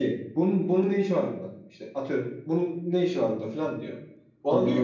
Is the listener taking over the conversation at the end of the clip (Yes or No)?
No